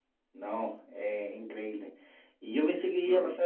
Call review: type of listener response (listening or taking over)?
listening